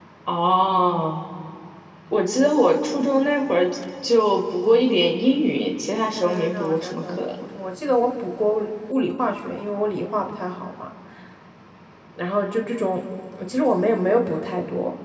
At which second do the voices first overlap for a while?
6.2 s

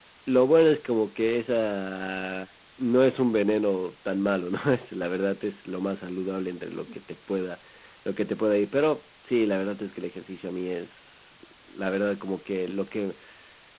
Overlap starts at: none

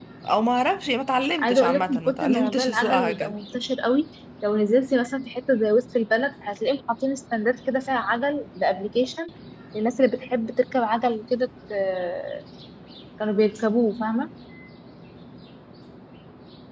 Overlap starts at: 1.4 s

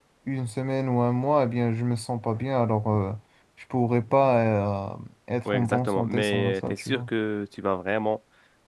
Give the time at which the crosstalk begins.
5.5 s

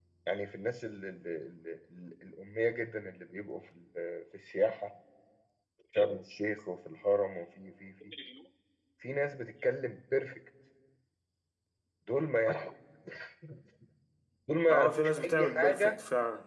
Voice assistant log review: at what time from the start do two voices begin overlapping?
14.7 s

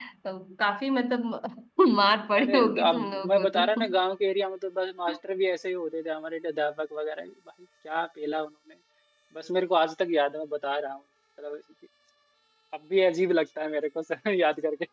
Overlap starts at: 2.4 s

